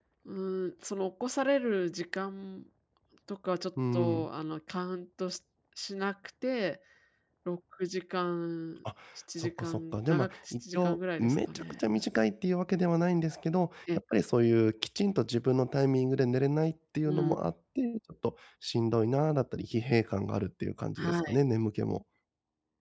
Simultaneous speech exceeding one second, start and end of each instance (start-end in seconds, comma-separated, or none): 9.4-11.8